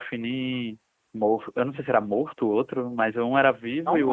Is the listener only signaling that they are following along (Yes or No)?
Yes